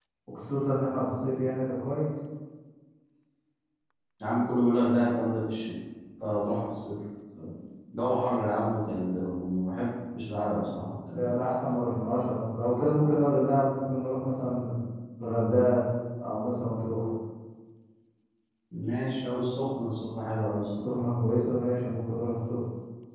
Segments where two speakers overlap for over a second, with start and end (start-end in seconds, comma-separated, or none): none